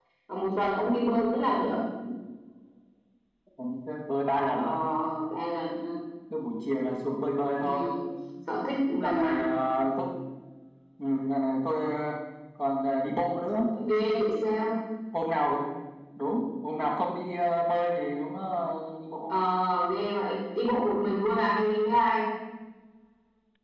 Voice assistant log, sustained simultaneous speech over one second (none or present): none